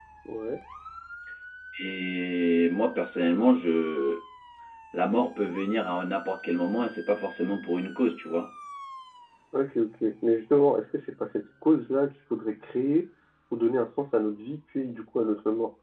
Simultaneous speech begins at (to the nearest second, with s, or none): none